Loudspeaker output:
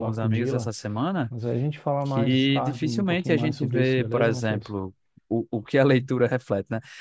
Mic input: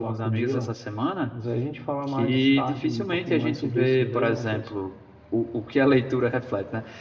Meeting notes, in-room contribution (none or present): none